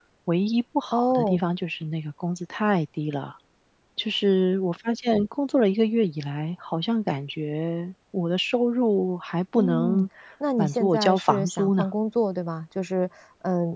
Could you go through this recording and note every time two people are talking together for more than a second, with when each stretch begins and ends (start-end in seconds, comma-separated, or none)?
10.6-11.8